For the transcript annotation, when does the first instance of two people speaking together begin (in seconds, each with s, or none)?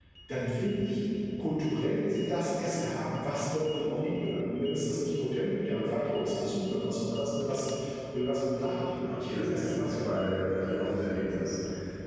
9.0 s